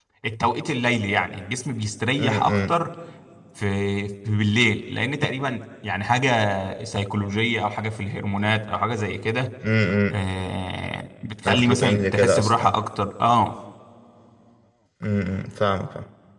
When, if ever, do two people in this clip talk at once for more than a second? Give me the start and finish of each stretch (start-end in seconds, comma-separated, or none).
11.4-12.7